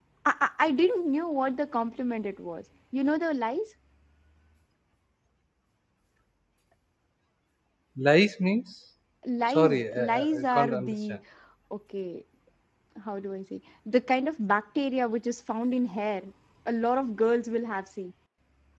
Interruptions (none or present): present